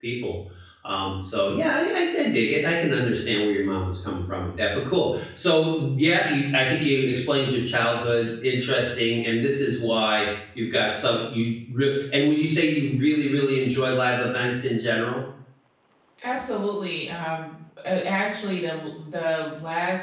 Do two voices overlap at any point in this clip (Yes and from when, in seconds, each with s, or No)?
No